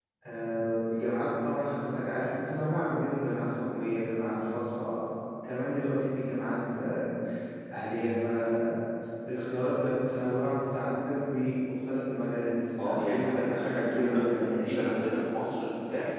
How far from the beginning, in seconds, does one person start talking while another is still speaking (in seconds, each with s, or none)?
12.8 s